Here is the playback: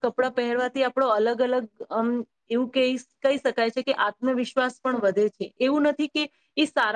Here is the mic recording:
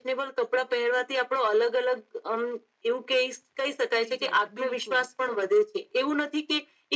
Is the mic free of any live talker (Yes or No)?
No